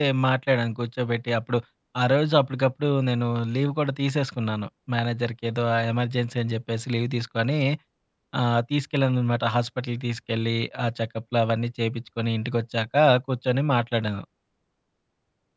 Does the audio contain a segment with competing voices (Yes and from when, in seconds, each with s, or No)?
No